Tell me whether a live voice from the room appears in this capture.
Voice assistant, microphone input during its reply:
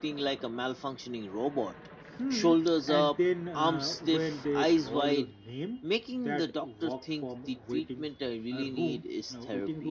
No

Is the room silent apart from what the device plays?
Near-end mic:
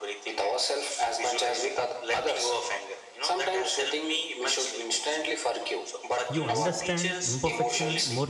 No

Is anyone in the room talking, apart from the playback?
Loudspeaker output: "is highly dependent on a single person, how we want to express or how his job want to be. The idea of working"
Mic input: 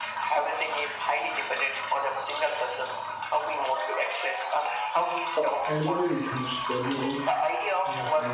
Yes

